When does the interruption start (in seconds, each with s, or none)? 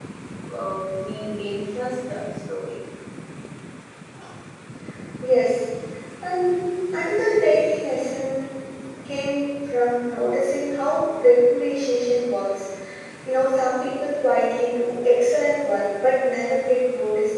none